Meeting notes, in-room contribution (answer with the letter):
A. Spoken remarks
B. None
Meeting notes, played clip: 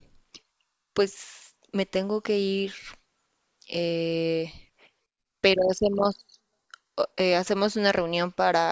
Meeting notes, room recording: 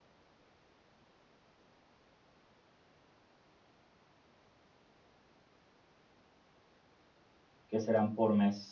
A